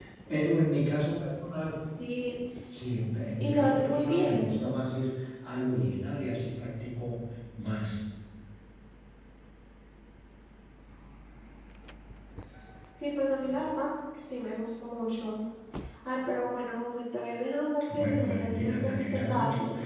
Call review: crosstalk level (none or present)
present